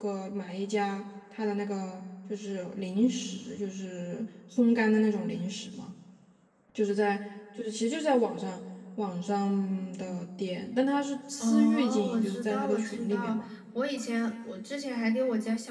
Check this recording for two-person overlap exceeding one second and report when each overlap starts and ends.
11.4-13.4

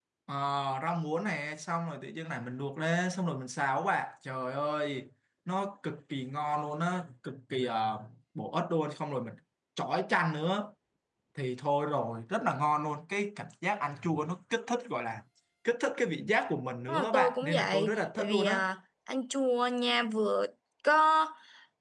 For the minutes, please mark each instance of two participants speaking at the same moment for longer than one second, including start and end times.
16.9-18.6

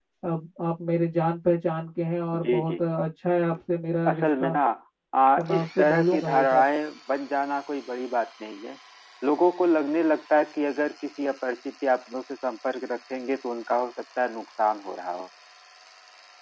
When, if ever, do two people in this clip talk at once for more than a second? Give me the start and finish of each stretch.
5.4-6.6

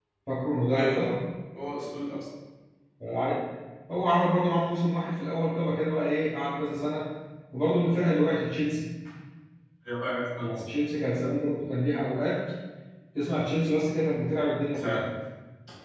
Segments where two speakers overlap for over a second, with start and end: none

